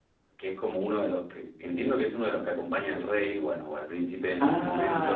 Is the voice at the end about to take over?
Yes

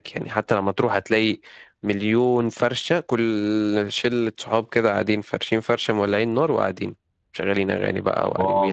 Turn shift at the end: Yes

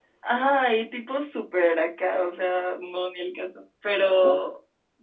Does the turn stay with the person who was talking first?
Yes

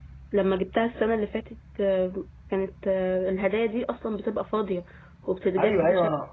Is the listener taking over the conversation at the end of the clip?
Yes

